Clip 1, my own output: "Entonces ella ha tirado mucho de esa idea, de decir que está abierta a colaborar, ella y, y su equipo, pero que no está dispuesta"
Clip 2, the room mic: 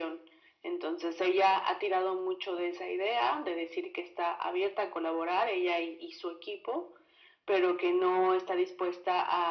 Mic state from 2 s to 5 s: echo only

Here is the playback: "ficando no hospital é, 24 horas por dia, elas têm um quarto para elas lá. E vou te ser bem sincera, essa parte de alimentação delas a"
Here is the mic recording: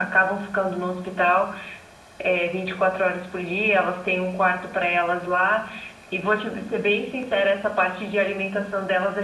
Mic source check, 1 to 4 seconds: echo only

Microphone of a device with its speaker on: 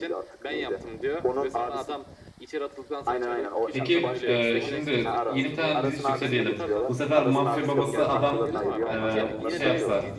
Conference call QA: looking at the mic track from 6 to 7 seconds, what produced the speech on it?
both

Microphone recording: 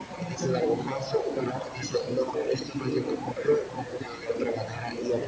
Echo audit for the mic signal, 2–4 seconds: echo only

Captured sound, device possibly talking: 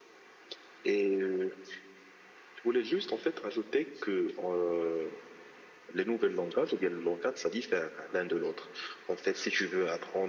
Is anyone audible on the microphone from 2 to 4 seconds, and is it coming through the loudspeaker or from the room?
echo only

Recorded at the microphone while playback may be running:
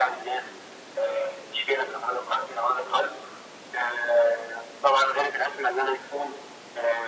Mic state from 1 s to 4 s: echo only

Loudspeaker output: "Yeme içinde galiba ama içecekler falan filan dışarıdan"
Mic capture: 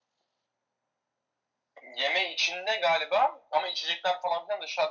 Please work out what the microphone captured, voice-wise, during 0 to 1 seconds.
neither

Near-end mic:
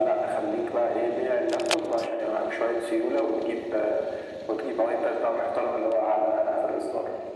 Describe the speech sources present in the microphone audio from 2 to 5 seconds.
echo only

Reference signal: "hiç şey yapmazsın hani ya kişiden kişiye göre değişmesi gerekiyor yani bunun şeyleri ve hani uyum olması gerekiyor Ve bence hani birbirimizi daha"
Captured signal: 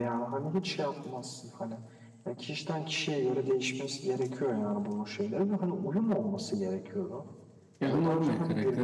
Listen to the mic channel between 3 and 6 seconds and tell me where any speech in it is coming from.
echo only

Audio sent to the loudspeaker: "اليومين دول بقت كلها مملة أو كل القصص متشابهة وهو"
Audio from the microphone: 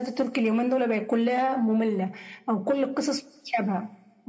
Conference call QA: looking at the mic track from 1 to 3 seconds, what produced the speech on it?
echo only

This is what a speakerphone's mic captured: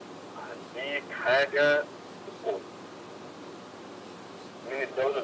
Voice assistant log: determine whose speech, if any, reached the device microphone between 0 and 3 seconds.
echo only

